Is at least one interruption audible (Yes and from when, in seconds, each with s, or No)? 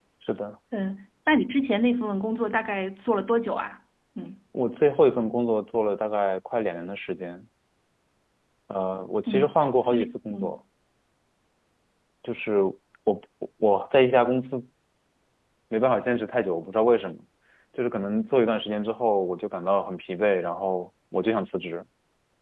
Yes, from 9.3 s